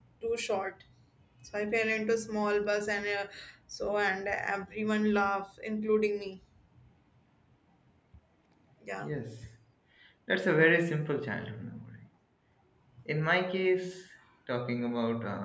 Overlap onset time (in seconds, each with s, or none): none